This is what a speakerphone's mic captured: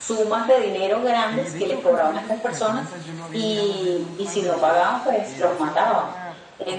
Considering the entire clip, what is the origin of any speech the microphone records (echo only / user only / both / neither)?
both